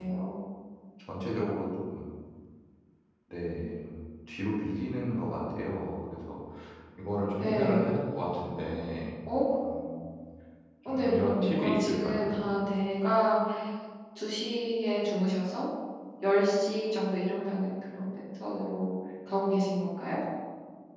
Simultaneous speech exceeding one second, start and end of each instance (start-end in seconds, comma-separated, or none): 10.9-12.4